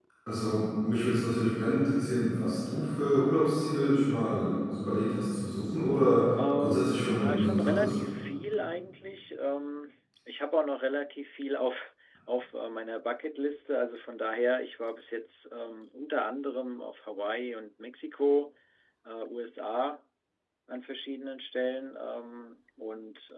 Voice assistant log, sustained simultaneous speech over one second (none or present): present